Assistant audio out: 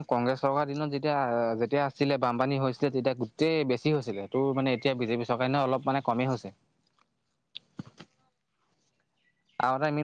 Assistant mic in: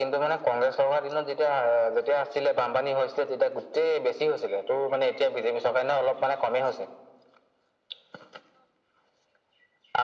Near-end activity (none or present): none